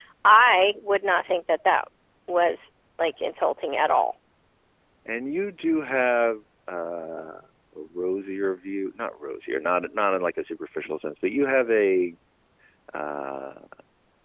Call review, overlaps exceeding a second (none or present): none